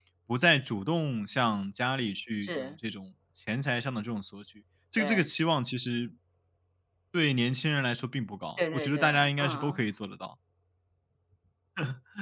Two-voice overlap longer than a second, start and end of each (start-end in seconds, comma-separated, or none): 8.6-9.8